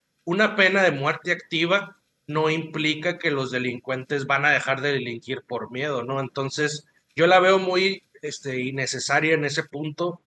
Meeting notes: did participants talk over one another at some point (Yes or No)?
No